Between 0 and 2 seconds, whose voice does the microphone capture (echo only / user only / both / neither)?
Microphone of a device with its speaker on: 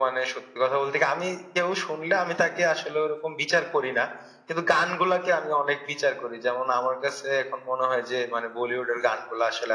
echo only